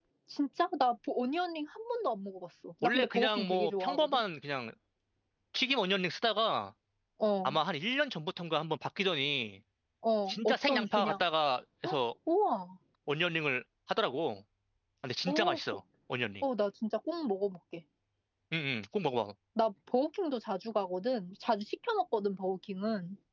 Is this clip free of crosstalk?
No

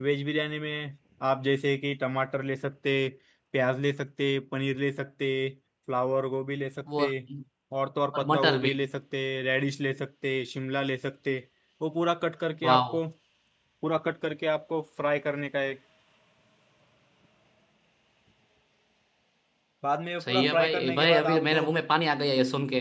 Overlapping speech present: Yes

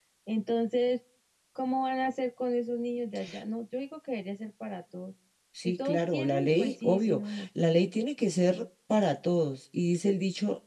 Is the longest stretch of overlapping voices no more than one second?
No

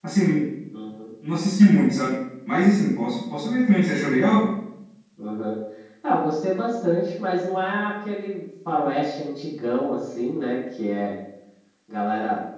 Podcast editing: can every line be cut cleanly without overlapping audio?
Yes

